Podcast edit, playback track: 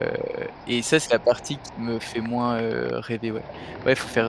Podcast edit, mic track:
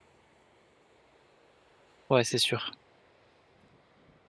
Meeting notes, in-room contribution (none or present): present